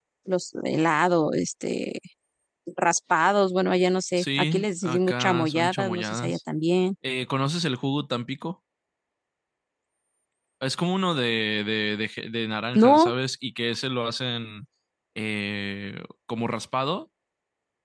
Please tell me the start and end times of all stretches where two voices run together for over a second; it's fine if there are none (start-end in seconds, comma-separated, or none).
4.2-6.4